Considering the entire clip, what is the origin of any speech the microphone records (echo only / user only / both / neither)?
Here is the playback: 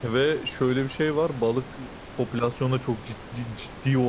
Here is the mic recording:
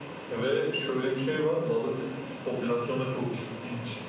echo only